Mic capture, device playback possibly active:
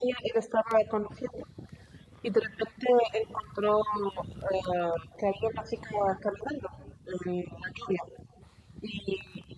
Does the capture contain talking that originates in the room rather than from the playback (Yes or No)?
No